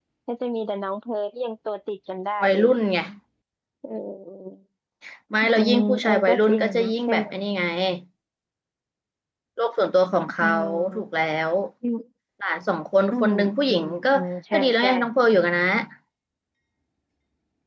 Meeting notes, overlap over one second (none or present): present